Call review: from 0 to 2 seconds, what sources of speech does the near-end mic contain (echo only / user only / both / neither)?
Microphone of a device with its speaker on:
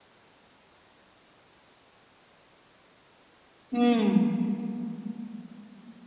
neither